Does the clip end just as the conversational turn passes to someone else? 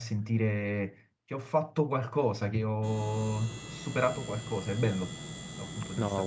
Yes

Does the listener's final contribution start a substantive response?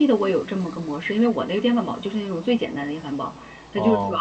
No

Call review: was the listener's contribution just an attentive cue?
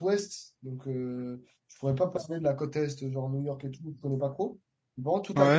Yes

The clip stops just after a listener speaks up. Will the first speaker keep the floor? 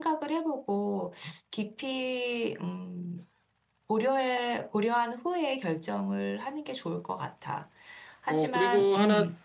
No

